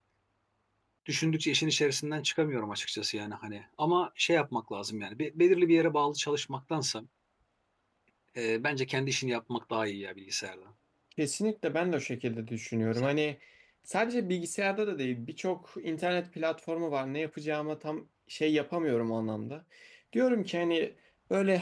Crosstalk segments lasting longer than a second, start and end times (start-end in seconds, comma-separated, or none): none